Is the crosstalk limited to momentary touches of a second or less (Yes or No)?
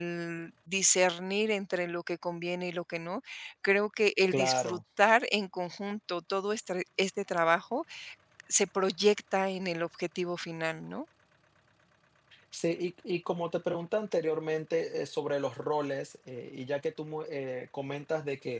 Yes